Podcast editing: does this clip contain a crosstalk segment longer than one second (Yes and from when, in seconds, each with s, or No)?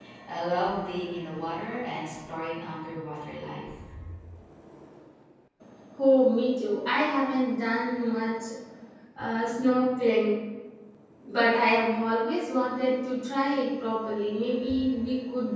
No